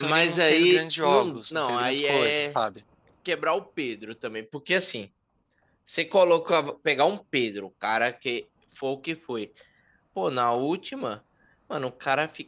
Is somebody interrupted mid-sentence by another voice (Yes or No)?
Yes